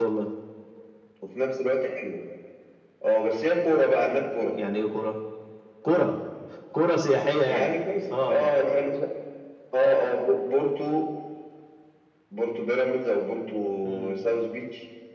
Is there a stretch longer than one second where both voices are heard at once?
No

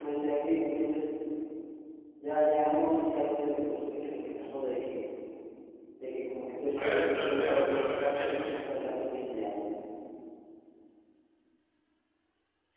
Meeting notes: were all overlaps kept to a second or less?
No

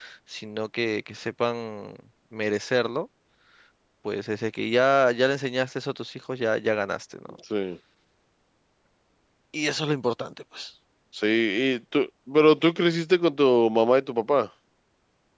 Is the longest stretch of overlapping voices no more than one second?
Yes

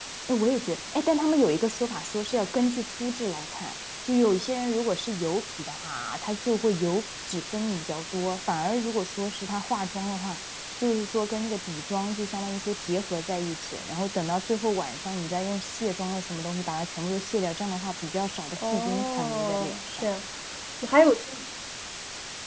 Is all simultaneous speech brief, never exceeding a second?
No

